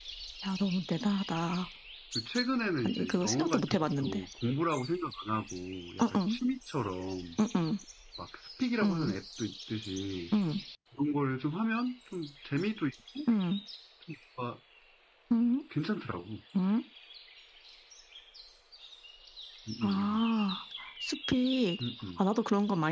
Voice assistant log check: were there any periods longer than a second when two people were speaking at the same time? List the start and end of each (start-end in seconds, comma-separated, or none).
2.8-4.2